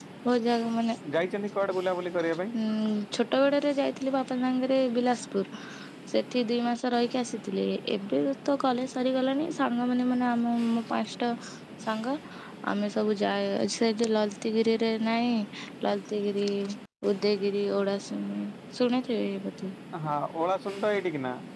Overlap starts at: none

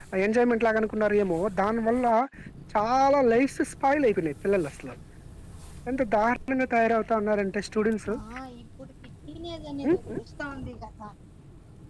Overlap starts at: none

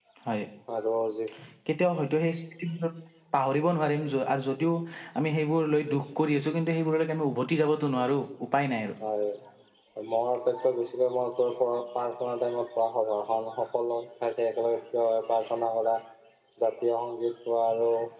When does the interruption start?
none

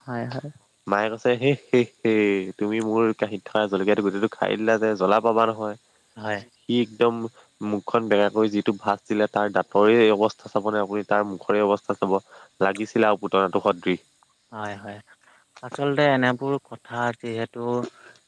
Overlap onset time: none

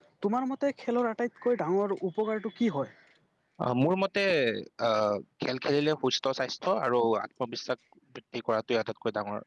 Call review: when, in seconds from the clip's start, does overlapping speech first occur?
none

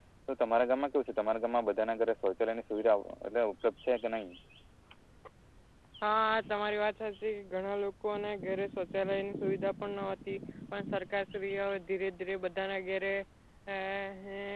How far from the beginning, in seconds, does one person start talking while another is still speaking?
none

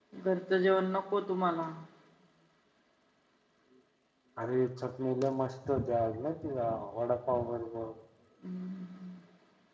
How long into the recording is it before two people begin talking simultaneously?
none

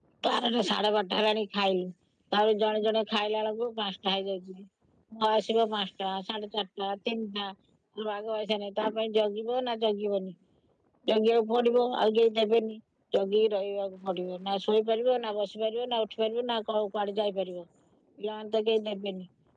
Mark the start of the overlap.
none

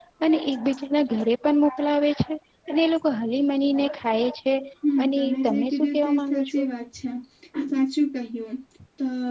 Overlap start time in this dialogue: 5.0 s

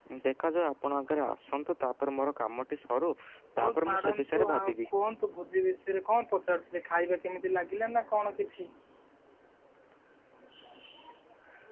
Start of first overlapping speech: 3.6 s

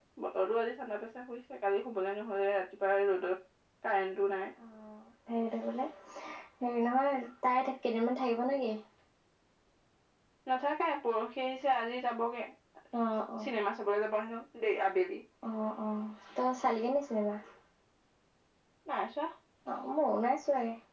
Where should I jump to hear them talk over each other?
none

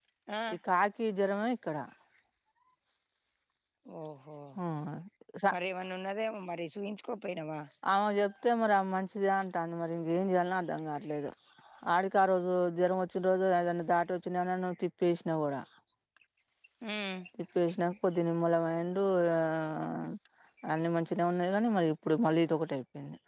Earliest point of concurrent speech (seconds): none

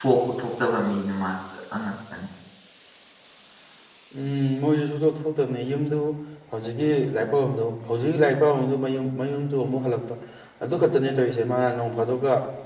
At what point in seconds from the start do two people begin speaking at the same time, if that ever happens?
none

